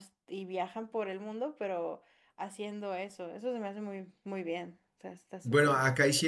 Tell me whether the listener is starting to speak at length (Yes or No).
Yes